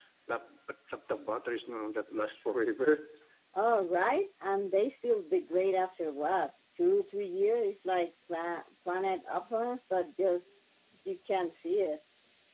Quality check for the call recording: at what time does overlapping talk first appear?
none

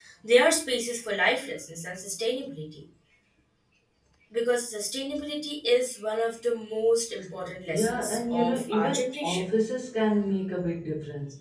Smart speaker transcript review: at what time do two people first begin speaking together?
7.7 s

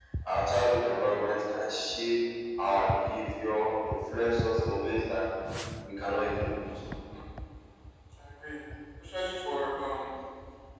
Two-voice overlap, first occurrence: none

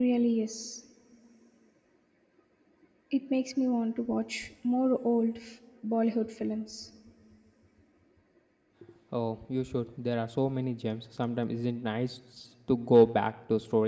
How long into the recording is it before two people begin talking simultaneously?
none

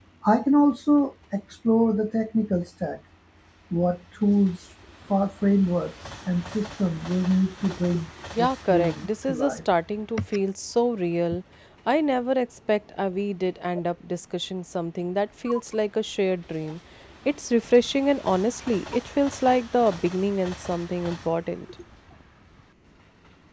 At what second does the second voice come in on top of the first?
8.4 s

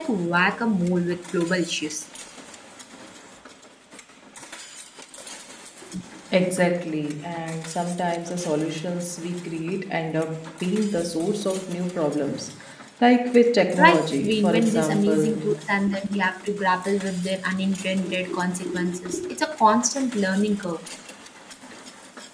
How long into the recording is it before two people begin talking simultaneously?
13.8 s

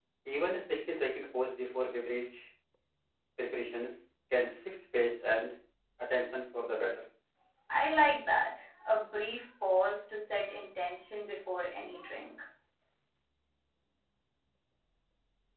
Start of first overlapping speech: none

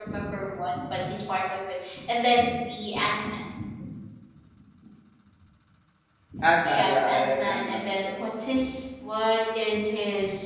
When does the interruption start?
6.7 s

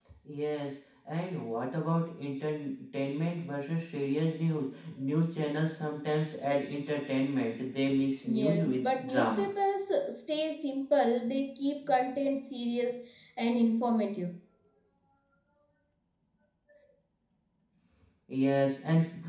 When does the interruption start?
8.2 s

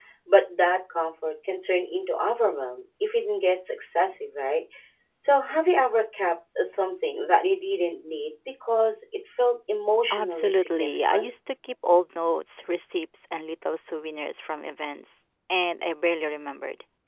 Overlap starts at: 10.1 s

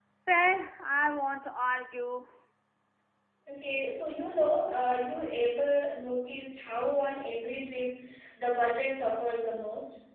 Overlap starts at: none

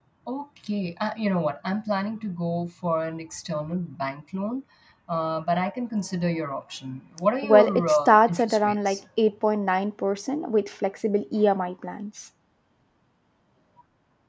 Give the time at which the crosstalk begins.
7.4 s

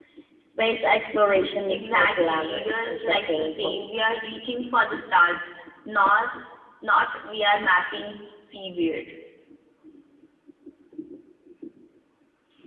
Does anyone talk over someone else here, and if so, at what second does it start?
1.7 s

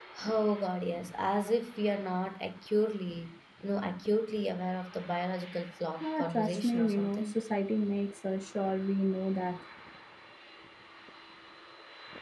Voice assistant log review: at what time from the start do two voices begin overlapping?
6.0 s

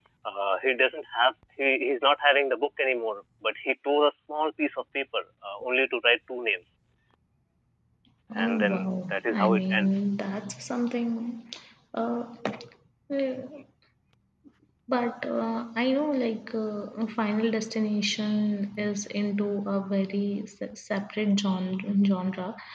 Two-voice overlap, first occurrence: 8.4 s

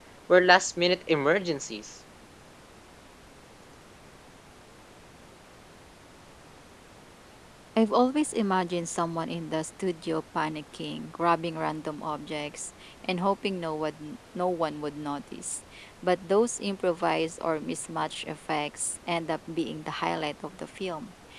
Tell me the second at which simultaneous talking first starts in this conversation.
none

